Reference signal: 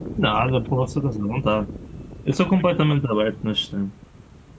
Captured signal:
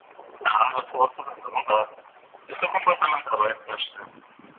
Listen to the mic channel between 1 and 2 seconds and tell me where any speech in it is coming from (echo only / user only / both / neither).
echo only